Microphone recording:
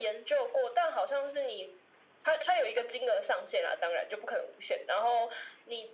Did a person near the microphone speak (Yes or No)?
No